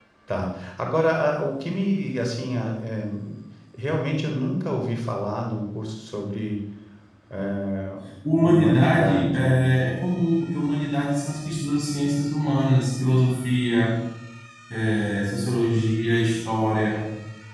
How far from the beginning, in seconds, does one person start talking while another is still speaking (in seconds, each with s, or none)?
8.4 s